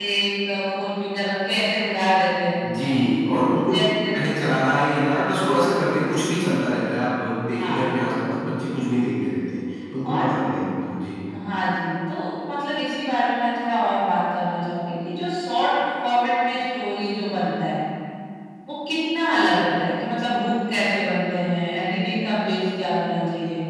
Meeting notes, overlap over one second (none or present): none